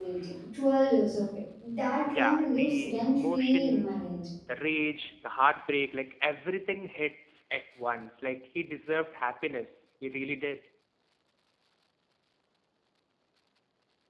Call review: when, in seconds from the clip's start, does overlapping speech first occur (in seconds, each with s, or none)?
2.1 s